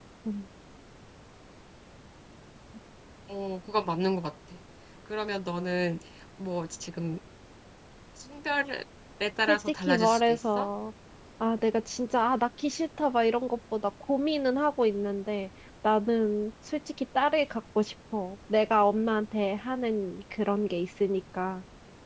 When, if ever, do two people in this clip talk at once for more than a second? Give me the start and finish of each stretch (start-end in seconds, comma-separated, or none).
9.5-10.7